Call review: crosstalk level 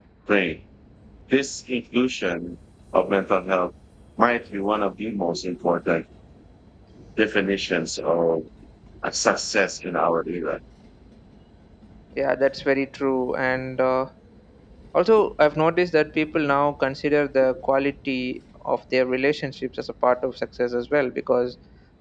none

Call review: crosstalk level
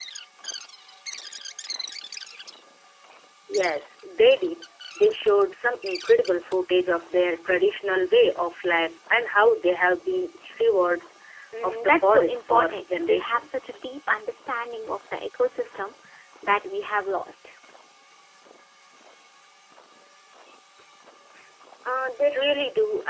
present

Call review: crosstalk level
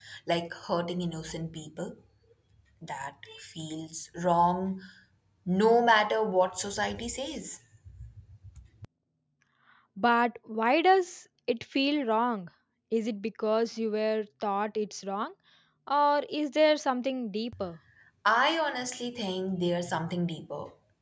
none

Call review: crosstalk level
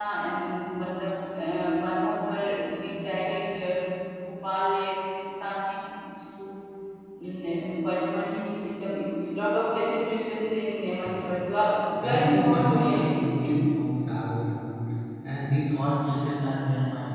present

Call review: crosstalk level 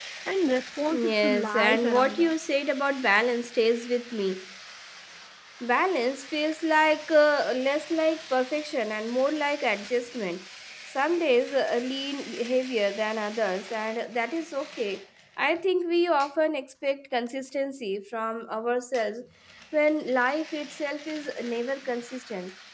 present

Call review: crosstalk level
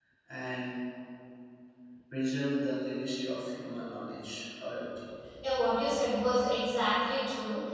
none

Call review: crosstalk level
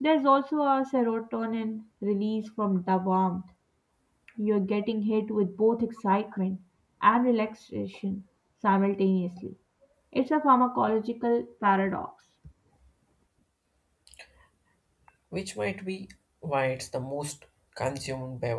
none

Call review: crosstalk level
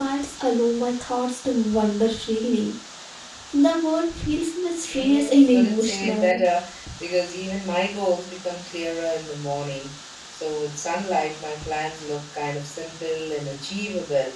present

